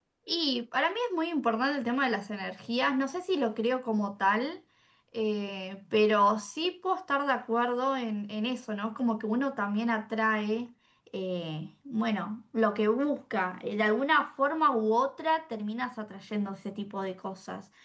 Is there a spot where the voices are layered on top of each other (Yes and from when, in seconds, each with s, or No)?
No